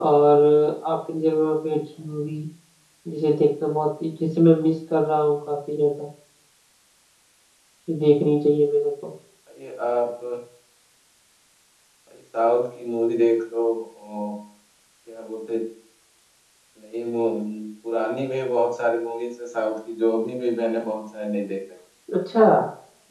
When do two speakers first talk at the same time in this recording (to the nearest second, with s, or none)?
none